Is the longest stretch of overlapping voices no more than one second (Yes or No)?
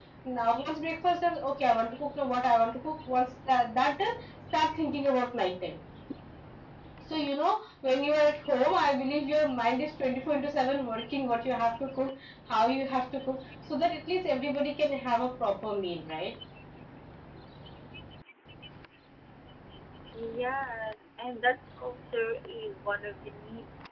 Yes